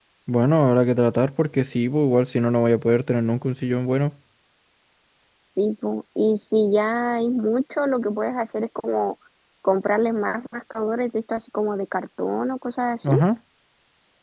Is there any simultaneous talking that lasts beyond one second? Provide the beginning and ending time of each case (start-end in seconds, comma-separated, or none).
none